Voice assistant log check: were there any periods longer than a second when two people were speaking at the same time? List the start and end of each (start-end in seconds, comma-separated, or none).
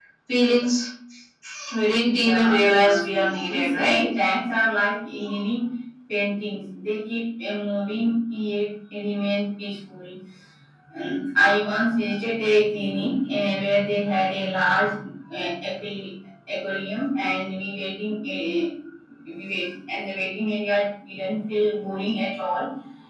2.0-4.1